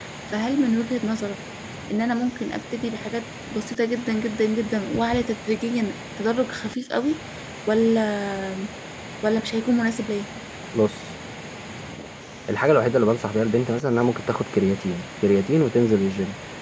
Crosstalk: none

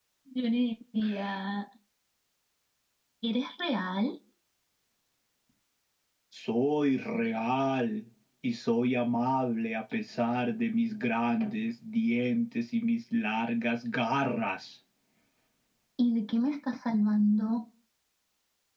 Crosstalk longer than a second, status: none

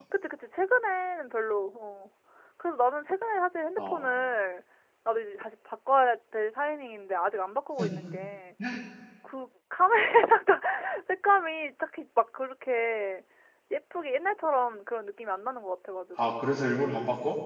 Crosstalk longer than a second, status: none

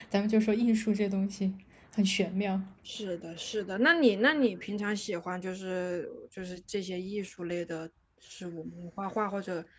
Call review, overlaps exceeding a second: none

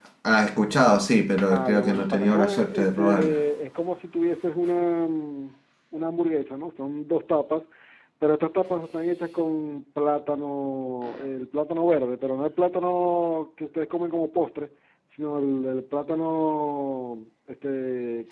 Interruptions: present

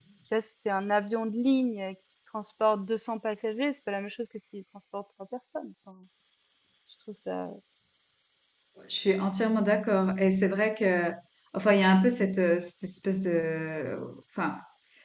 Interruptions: none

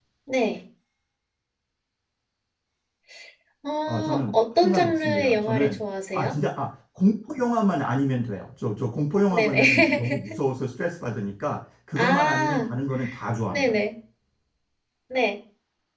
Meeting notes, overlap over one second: present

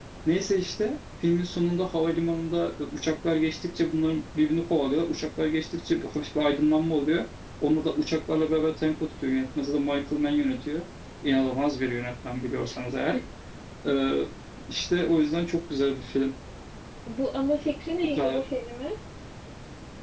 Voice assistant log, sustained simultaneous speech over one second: none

